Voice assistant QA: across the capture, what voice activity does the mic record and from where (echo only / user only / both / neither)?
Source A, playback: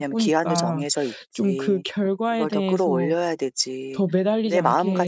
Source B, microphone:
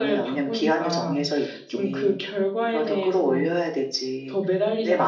echo only